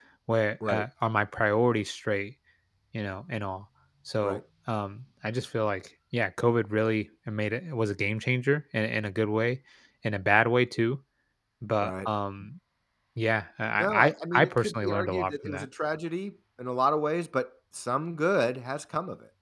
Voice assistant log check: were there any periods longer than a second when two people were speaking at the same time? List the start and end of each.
13.8-15.7

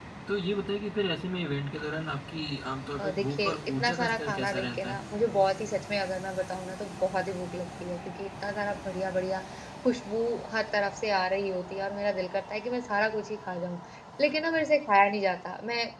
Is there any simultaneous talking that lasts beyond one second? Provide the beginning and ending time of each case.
3.0-5.0

